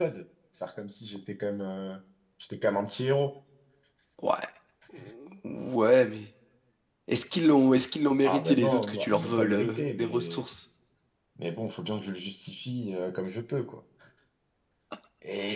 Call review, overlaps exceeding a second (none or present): present